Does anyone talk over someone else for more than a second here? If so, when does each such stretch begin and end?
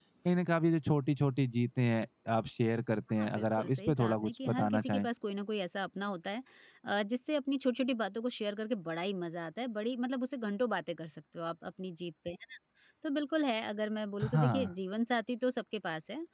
3.2-5.1

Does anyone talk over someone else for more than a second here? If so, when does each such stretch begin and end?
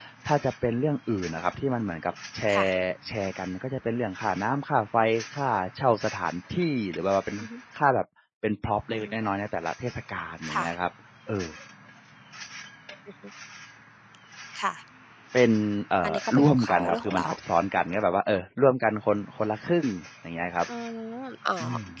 16.0-17.2

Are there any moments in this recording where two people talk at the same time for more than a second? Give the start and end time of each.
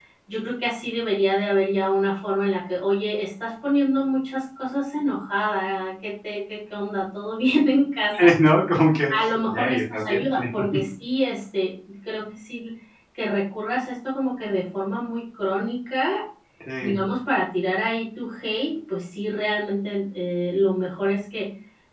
9.1-10.4

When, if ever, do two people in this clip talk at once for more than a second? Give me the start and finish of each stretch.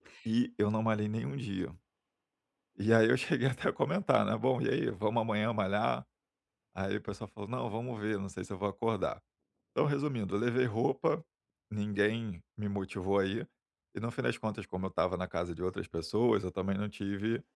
none

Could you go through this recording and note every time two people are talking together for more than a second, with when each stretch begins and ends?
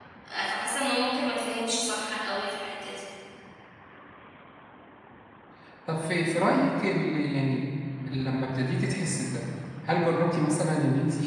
none

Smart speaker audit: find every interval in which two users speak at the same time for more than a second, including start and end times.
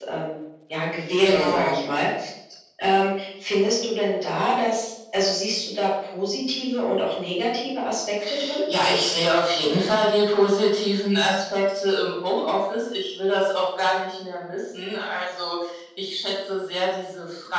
none

